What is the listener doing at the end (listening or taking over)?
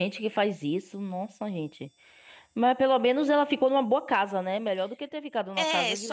taking over